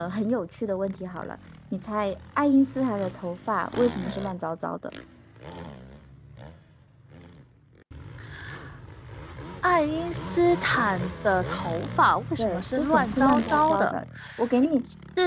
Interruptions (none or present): present